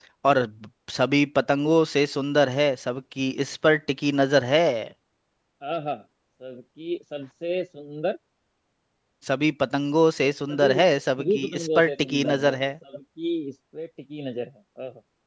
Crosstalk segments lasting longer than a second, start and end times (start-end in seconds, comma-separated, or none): 11.2-12.6